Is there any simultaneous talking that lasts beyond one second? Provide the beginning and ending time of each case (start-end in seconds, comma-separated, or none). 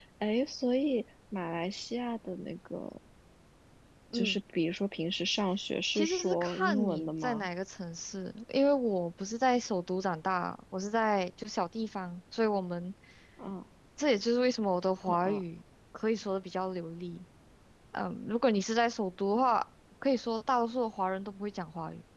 6.0-7.5